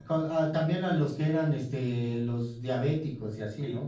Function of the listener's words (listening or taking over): taking over